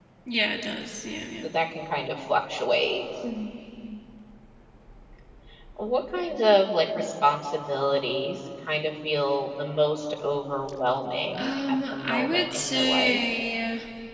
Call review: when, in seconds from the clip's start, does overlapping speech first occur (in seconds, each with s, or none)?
11.3 s